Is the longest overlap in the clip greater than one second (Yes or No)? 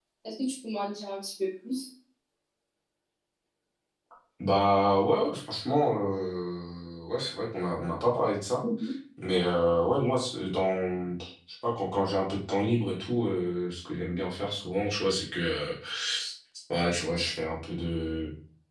No